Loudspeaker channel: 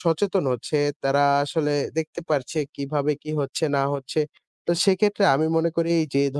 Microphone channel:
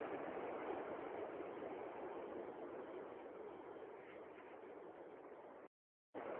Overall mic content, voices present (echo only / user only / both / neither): neither